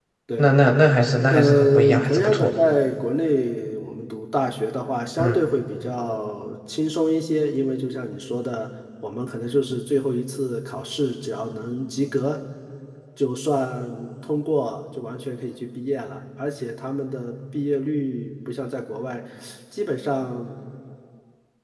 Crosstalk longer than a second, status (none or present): present